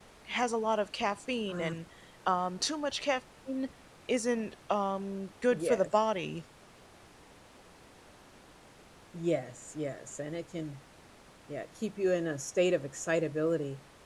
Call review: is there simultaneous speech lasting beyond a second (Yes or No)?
No